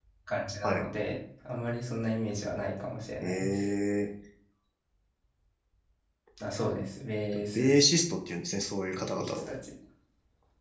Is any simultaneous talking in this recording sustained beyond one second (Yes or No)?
No